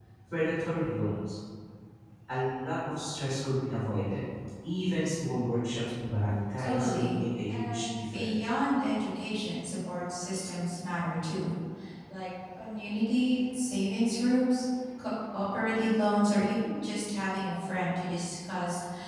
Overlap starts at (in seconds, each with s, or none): 6.6 s